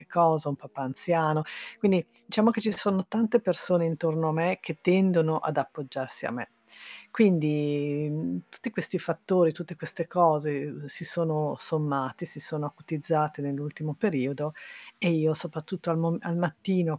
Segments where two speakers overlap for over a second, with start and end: none

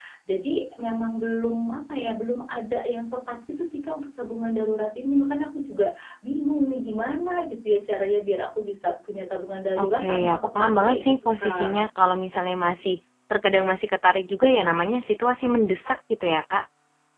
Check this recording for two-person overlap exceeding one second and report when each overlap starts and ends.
9.8-11.8

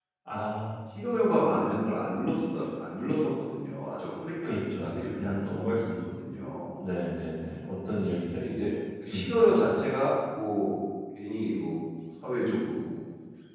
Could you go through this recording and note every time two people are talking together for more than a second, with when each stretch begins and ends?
4.4-5.7

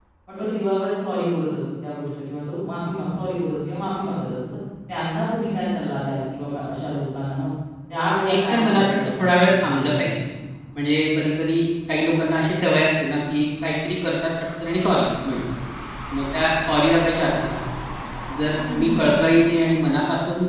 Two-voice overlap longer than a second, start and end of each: 8.2-9.9

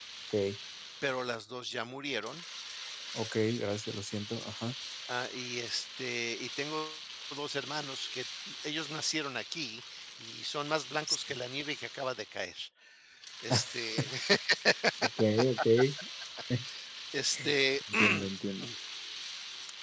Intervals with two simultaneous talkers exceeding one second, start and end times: none

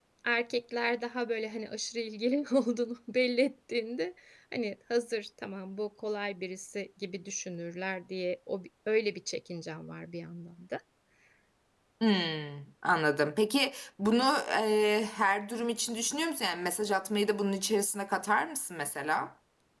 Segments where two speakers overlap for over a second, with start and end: none

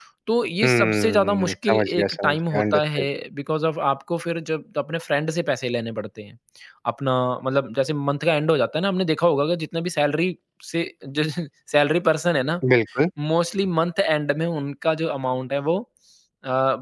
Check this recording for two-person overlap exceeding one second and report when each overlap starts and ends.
0.6-3.0

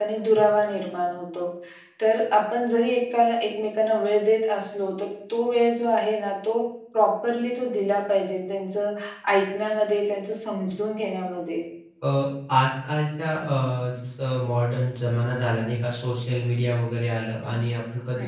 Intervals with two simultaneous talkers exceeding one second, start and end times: none

